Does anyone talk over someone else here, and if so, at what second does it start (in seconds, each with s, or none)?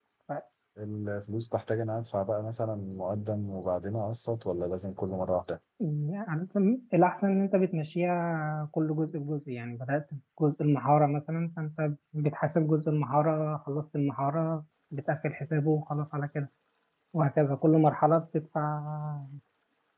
none